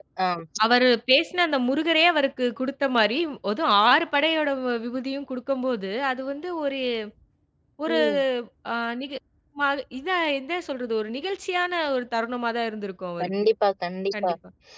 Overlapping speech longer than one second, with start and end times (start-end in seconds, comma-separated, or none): none